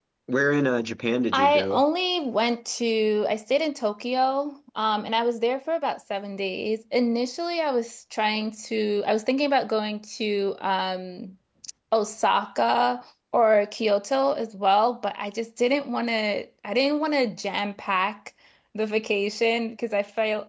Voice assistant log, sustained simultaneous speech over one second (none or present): none